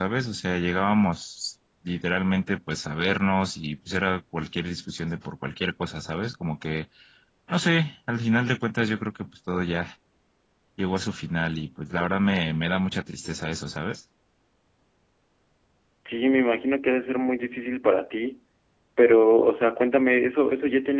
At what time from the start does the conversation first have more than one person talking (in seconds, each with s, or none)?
none